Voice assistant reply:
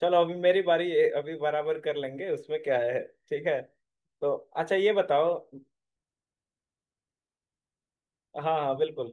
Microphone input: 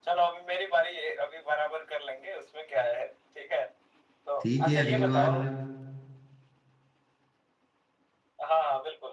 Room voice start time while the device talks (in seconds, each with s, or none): 4.4 s